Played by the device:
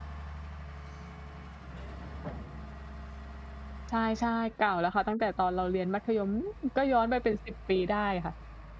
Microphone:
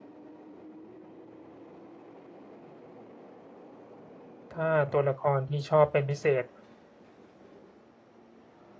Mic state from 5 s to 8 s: user only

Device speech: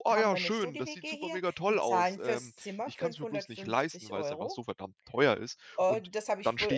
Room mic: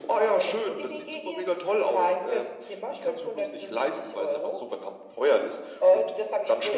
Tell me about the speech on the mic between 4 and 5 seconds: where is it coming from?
echo only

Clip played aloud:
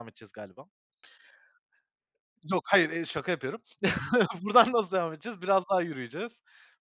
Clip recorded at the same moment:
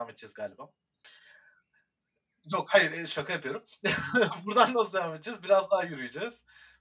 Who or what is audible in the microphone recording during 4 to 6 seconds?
echo only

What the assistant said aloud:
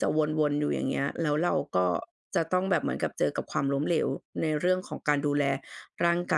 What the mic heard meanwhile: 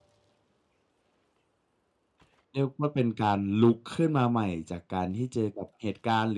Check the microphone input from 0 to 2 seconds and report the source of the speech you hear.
neither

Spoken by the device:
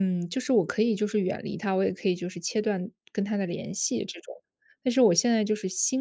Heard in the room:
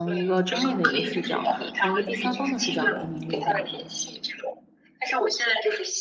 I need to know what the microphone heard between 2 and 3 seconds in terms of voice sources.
both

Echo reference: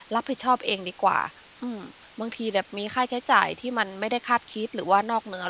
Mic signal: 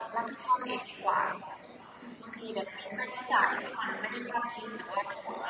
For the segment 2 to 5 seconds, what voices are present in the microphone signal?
echo only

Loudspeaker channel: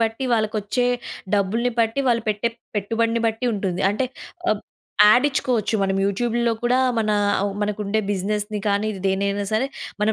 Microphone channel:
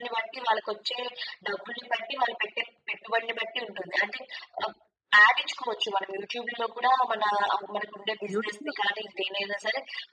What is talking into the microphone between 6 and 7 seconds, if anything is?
echo only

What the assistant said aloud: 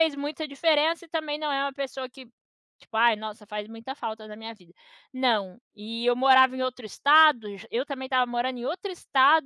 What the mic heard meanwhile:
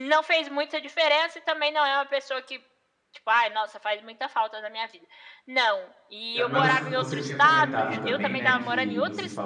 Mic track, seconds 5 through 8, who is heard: both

